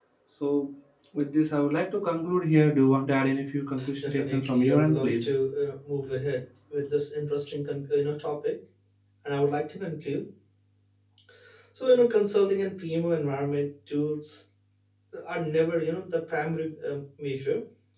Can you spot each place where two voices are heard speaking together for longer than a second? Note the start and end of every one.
4.0-5.3

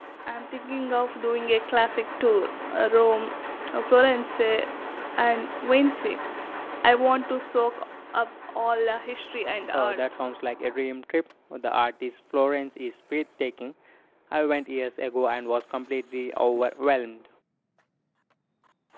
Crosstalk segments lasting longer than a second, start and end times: none

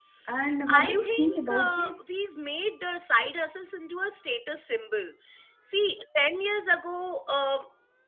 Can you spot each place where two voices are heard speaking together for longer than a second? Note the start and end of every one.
0.7-1.9

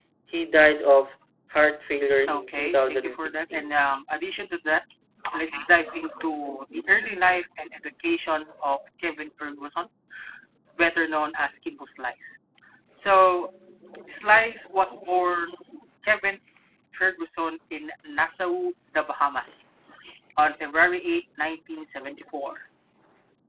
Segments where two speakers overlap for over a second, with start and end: 2.3-3.7

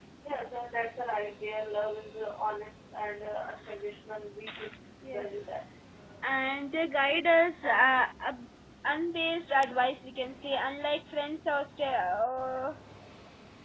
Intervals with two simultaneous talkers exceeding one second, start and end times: none

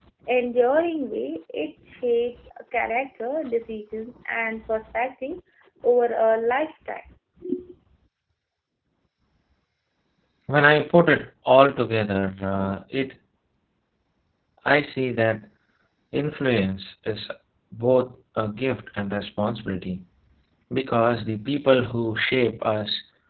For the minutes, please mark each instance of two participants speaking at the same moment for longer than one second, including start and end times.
none

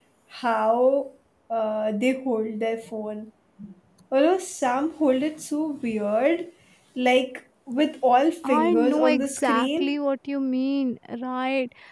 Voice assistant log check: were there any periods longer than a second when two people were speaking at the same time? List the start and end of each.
8.4-9.9

